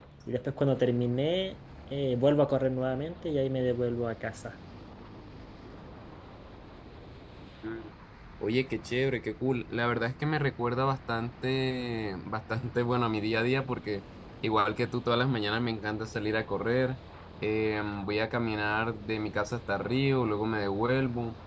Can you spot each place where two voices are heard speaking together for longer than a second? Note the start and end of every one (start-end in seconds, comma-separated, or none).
none